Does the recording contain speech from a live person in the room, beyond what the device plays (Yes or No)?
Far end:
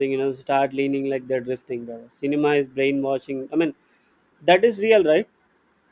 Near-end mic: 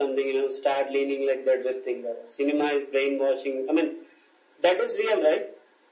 No